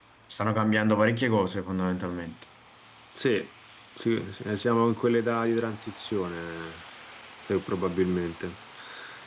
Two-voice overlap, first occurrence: none

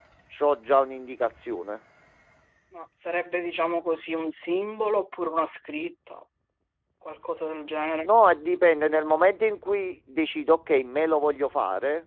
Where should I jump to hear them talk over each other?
none

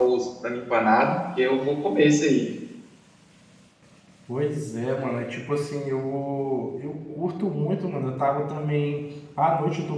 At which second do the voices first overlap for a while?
none

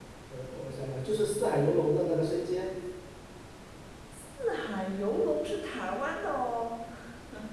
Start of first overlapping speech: none

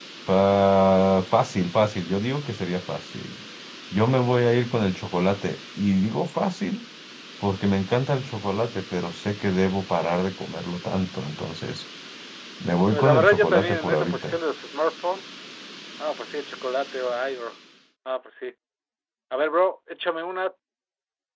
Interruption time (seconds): 12.9 s

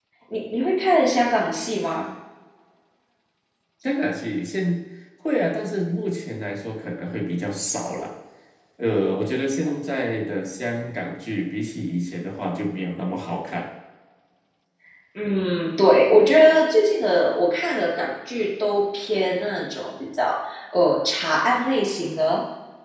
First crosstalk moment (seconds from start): none

